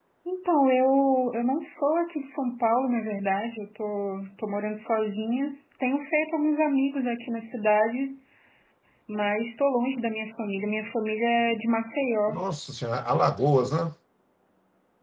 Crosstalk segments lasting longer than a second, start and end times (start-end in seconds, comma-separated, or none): none